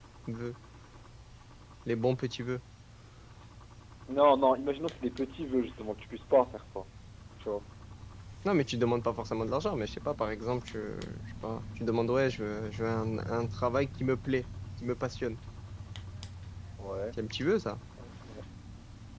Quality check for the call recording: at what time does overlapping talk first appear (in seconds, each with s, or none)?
none